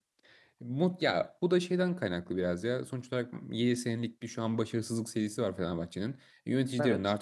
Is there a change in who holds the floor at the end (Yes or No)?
No